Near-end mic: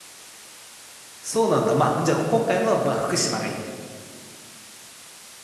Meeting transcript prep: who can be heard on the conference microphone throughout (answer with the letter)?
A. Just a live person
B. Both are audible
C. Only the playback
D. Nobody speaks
A